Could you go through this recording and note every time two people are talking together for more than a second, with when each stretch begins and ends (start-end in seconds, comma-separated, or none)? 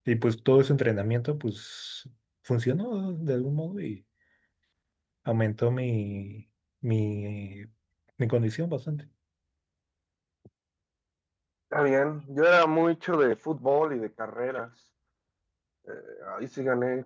none